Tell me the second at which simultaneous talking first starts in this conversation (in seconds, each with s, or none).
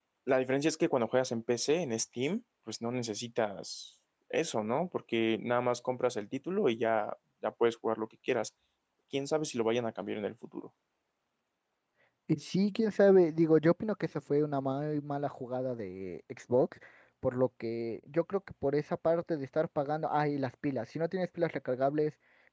none